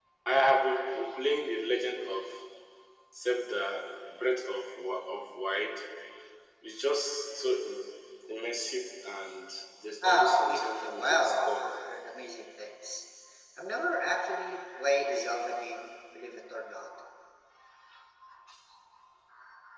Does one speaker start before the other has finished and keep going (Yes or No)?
Yes